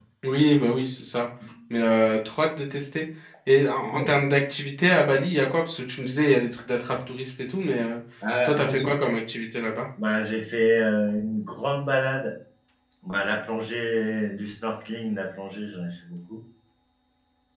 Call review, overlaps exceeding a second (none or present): none